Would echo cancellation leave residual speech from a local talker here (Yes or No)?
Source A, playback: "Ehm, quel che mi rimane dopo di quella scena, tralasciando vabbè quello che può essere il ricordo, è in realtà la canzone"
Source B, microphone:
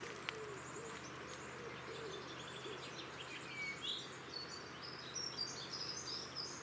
No